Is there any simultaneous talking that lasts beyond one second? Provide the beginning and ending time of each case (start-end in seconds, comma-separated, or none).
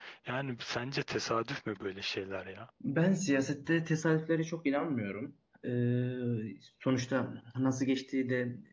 none